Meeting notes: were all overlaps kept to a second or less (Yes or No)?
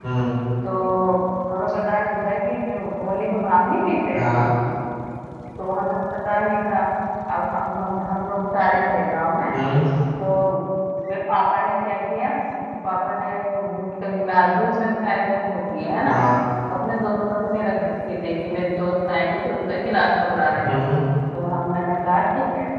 Yes